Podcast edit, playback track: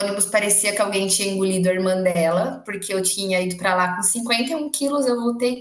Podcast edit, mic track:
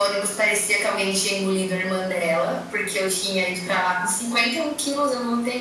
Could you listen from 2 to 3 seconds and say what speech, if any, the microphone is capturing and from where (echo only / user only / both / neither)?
echo only